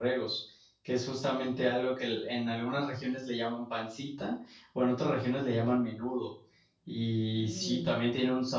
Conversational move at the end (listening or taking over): listening